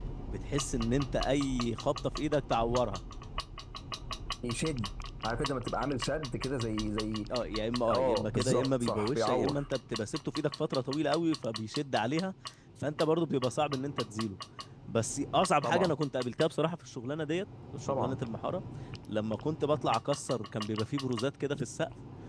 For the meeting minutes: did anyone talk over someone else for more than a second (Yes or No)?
Yes